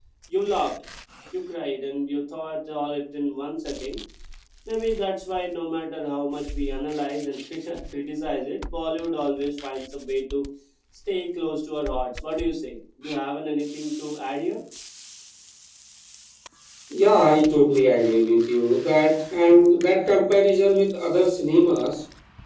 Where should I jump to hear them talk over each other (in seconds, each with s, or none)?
none